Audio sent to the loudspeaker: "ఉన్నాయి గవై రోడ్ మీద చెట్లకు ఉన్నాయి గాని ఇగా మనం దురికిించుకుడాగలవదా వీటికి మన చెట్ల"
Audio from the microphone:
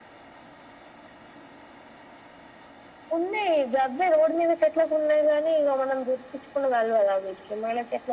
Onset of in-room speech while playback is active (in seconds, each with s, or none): none